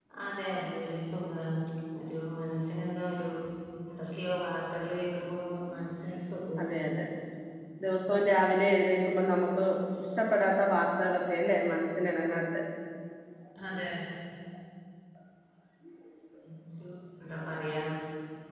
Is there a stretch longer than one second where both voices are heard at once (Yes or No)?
No